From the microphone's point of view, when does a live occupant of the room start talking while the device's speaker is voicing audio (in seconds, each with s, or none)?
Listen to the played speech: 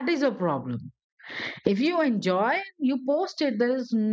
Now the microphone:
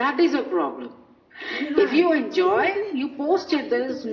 1.6 s